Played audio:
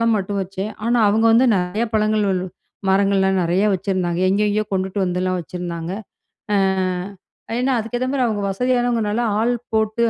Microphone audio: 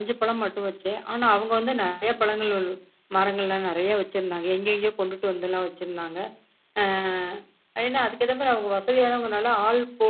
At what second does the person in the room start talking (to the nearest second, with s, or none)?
none